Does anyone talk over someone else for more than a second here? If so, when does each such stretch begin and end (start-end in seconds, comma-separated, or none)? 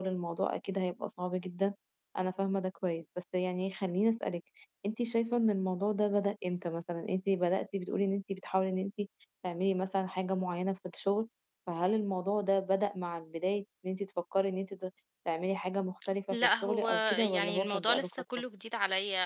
16.3-18.2